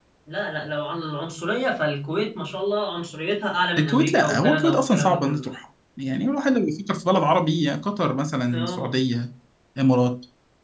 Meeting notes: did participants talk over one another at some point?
Yes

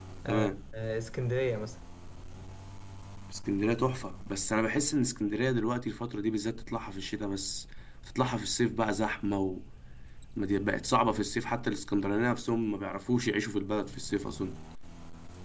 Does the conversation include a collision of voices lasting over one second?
No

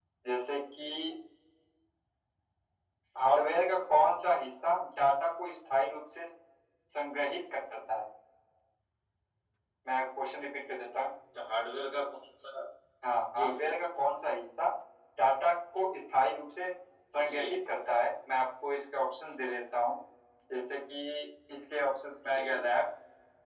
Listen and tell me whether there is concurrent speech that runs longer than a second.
No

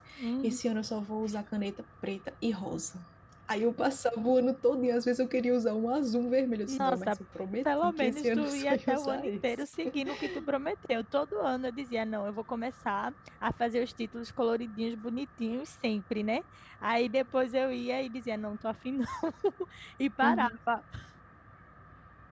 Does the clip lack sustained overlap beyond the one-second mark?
No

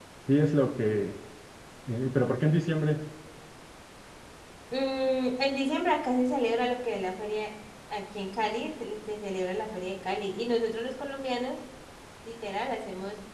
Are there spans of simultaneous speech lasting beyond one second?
No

